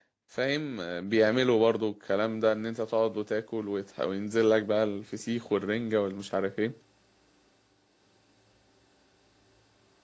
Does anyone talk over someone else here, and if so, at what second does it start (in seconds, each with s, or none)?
none